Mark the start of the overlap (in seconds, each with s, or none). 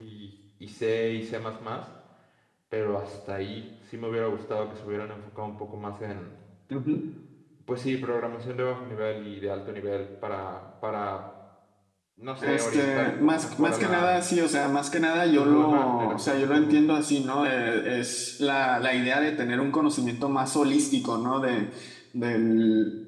12.4 s